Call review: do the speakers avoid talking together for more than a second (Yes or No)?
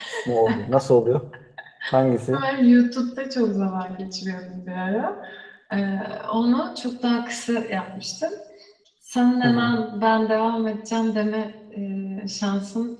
Yes